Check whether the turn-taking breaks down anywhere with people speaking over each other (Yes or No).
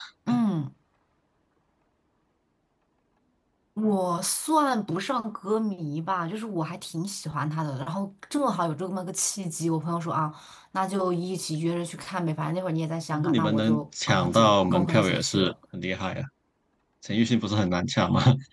Yes